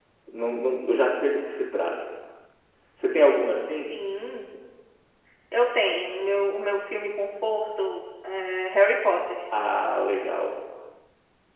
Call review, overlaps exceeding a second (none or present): none